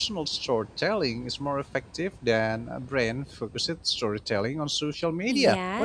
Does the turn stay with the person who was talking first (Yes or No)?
No